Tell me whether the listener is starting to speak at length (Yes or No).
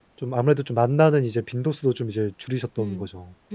Yes